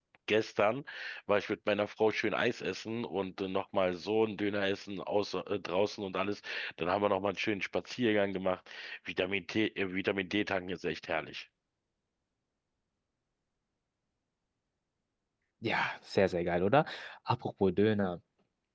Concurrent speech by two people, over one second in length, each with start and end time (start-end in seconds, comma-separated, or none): none